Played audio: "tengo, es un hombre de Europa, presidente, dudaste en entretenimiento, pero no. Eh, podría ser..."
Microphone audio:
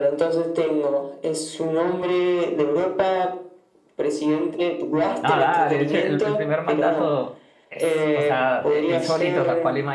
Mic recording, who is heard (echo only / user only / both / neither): both